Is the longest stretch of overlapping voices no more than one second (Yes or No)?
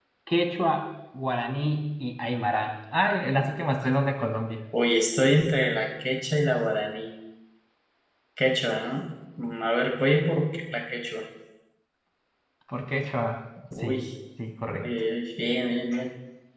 Yes